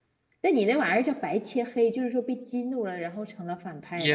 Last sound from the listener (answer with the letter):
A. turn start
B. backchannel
A